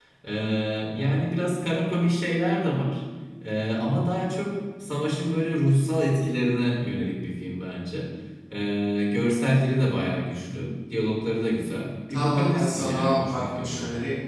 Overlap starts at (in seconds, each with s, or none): 12.1 s